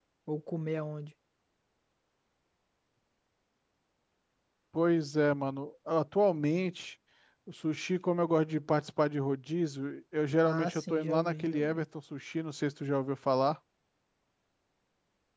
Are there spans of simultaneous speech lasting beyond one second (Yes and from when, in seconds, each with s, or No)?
Yes, from 10.4 s